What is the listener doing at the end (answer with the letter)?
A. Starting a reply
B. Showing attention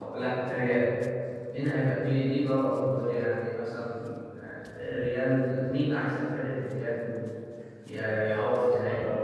B